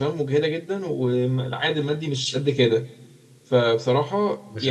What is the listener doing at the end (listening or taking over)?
taking over